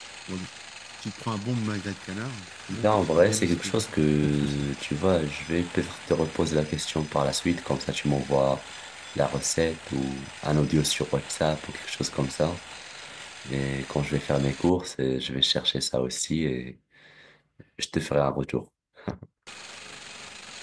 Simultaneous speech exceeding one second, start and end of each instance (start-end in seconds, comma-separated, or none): 2.8-4.7